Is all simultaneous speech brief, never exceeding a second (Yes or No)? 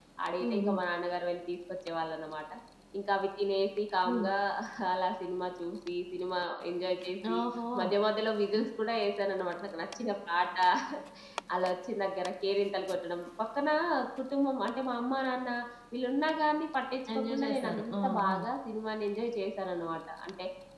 No